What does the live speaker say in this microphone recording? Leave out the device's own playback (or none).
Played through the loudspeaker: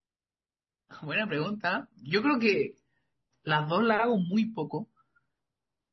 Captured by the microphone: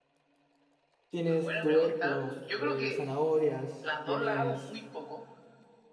tienes tubérculos, eh, zanahorias, tienes...